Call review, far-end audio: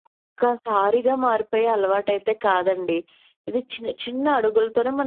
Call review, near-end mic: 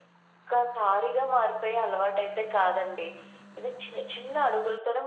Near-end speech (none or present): none